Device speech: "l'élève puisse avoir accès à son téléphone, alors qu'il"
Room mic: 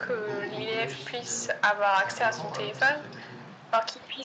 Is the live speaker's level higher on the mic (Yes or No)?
No